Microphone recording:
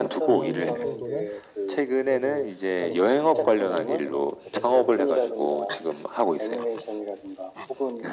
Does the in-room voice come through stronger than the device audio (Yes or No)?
No